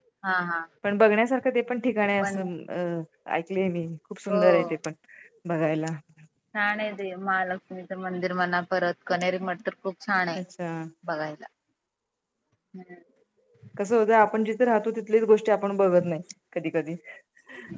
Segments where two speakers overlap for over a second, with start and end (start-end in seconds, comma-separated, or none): none